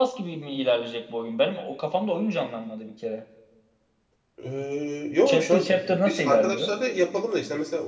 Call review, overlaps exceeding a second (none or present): present